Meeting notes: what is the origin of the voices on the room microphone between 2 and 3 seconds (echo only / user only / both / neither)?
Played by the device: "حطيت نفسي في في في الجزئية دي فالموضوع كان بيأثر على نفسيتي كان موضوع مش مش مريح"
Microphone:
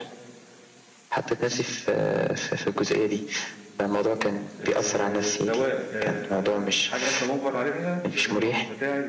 echo only